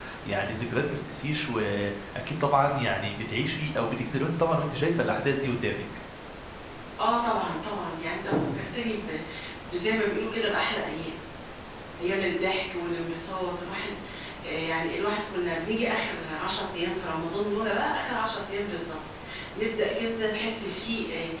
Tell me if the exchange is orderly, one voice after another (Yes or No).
Yes